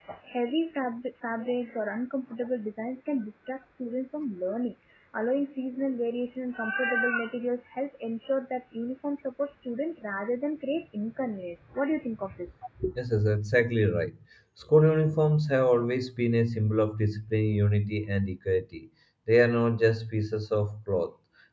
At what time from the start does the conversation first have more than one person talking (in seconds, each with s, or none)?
none